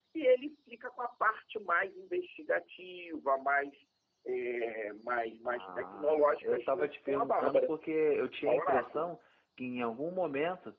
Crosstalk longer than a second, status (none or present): present